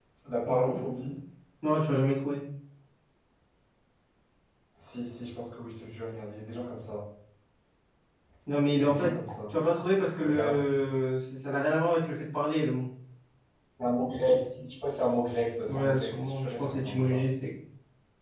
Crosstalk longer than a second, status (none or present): present